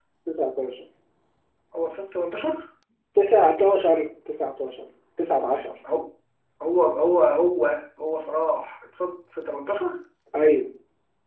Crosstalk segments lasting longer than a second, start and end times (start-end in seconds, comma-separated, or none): none